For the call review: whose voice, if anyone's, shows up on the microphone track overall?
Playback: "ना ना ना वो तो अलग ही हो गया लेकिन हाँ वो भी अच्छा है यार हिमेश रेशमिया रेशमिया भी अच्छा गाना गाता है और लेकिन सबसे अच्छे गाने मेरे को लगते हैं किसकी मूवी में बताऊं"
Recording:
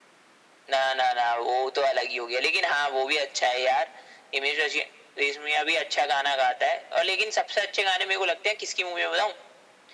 echo only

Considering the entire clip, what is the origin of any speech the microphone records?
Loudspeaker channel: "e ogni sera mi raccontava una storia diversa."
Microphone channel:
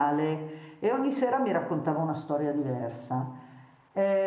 echo only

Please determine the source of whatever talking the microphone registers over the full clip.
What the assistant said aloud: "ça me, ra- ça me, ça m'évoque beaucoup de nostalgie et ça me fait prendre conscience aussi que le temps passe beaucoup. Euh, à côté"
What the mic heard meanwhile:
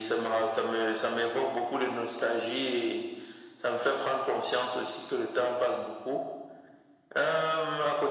echo only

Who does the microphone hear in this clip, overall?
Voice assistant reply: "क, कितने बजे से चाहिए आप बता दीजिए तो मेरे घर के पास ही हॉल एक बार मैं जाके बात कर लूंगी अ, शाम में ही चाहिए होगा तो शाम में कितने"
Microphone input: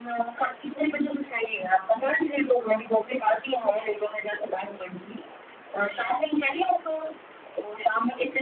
echo only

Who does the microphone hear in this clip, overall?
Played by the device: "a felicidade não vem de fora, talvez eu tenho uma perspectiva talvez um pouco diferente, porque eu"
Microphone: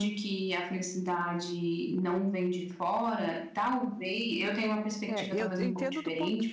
both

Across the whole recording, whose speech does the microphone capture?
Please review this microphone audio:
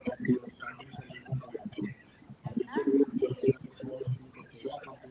both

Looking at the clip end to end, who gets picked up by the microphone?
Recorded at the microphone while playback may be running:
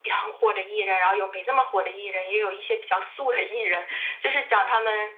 echo only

